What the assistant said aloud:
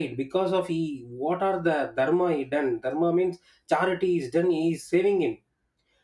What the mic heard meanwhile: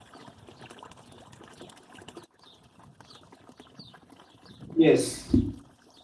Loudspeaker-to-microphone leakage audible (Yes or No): No